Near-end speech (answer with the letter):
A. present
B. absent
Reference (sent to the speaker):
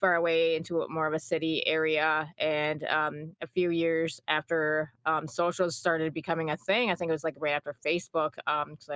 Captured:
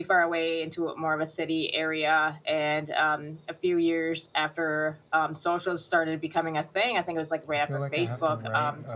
A